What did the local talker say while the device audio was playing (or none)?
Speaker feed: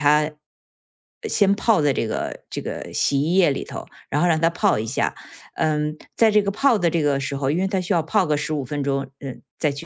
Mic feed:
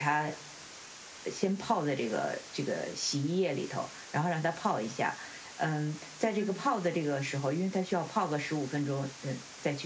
嗯。